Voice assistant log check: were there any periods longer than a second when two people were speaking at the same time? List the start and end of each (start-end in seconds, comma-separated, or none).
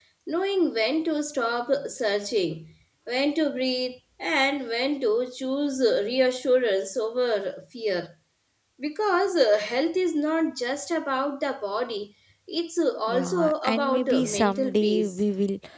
13.1-15.2